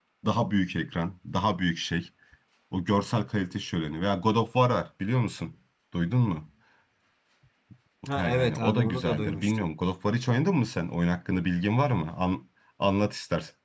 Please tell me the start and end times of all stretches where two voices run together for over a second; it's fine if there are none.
8.2-9.7

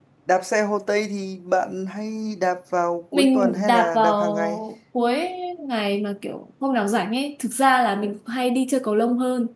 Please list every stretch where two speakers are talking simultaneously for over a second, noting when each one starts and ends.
3.1-4.6

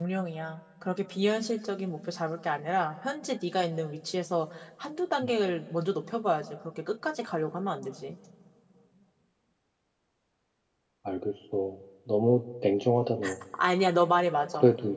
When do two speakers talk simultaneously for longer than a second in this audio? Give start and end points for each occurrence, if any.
none

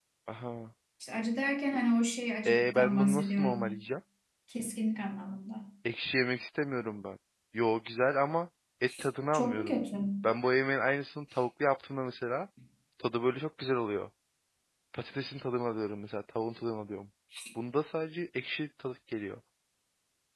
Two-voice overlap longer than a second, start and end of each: 2.5-3.7

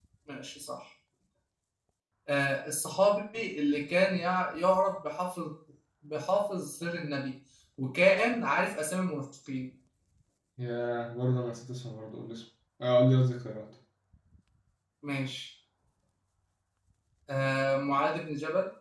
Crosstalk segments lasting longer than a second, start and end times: none

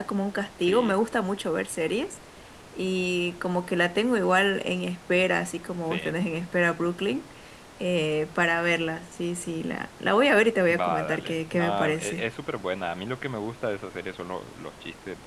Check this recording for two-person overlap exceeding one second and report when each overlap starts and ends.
10.7-12.2

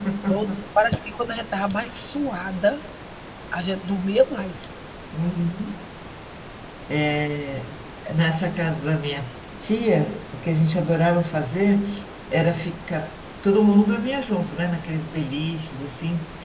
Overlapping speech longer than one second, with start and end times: none

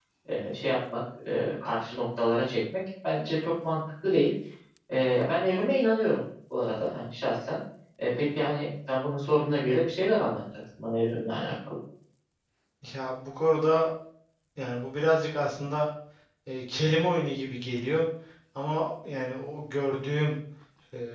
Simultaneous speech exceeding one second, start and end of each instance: none

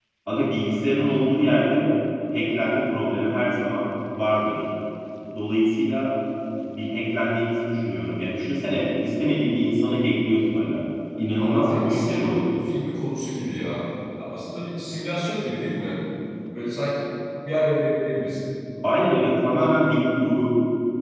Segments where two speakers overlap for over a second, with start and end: 11.4-12.6

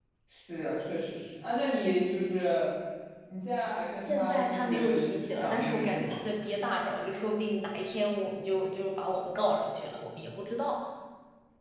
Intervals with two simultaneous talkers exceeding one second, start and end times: 4.0-6.2

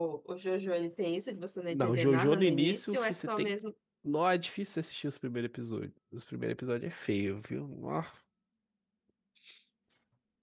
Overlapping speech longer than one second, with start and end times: 1.7-3.5

